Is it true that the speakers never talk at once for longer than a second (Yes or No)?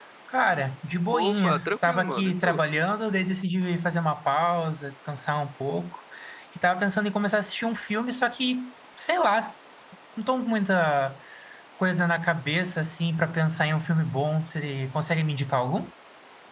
No